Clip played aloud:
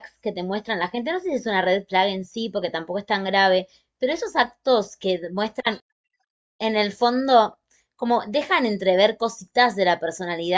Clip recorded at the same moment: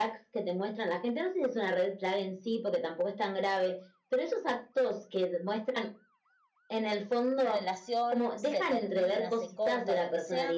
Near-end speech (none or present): present